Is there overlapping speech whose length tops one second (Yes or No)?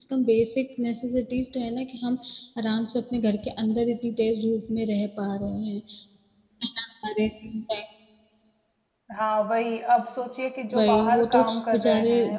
Yes